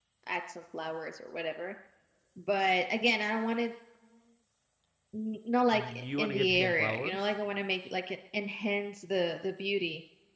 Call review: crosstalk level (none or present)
present